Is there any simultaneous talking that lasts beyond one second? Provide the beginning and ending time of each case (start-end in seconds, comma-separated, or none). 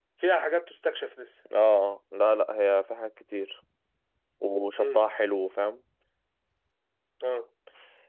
none